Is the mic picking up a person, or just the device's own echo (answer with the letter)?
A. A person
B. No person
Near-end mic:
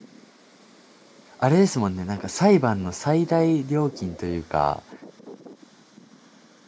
A